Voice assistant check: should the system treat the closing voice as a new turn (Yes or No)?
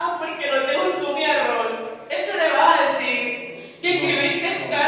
No